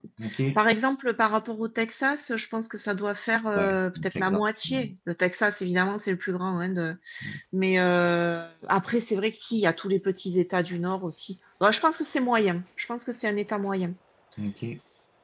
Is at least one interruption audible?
Yes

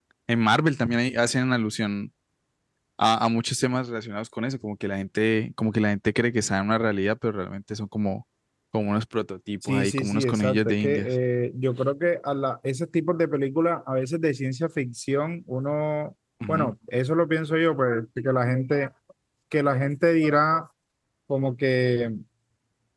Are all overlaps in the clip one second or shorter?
No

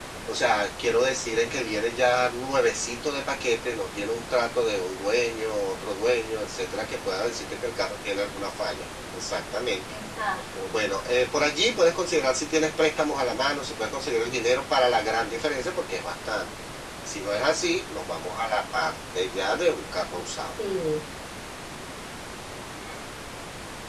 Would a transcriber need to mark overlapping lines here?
No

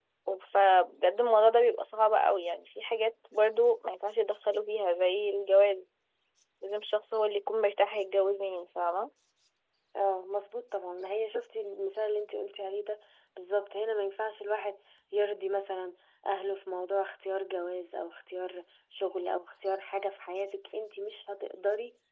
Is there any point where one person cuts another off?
No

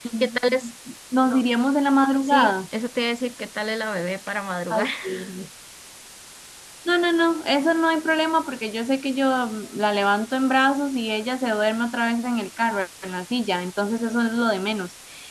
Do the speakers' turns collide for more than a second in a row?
No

